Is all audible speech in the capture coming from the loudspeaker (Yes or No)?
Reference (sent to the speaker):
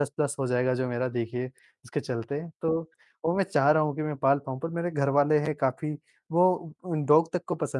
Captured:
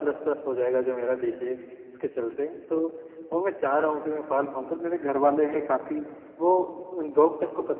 Yes